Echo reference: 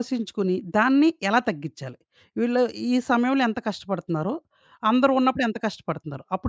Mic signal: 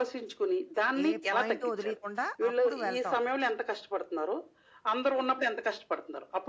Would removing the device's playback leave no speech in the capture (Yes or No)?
No